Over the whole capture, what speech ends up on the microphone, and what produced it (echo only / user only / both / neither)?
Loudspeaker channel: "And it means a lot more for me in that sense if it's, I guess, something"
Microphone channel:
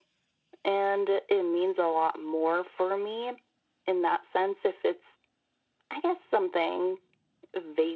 echo only